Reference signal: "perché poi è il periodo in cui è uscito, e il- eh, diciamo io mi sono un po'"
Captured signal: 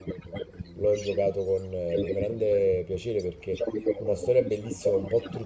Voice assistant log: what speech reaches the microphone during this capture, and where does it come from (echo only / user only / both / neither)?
both